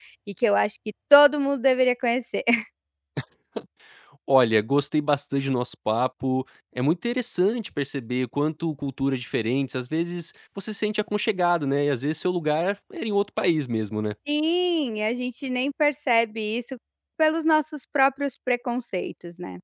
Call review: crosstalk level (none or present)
none